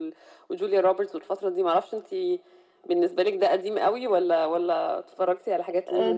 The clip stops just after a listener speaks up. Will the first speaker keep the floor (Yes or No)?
No